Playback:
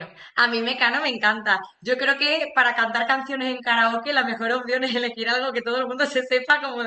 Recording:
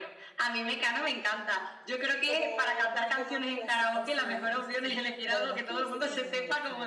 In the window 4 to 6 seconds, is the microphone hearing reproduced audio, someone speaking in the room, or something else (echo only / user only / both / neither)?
both